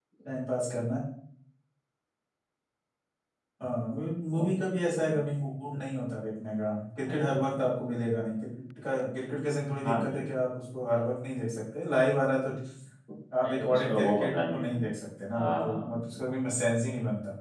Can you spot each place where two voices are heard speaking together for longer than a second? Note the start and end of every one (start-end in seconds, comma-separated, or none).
13.4-14.7